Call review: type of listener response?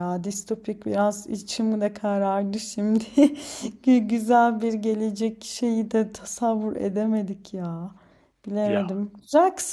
listening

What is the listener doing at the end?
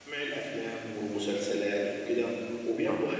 listening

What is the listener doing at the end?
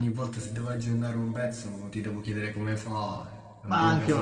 taking over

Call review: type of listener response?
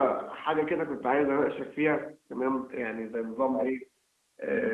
listening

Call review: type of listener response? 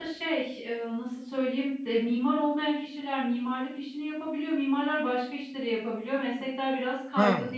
taking over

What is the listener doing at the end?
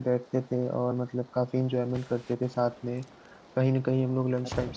listening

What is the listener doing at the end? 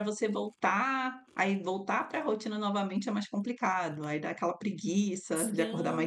taking over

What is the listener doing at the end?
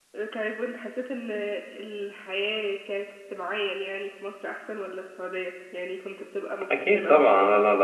taking over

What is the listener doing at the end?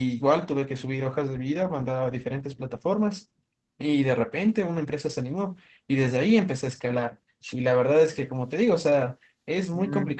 listening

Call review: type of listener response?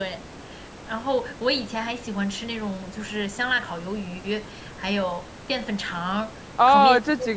taking over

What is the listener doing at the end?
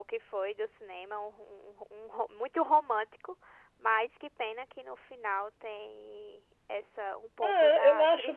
taking over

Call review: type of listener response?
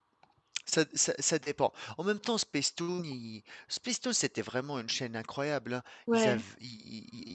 listening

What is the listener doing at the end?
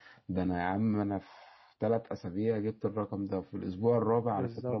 listening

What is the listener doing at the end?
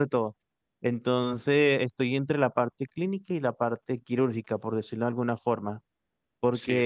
listening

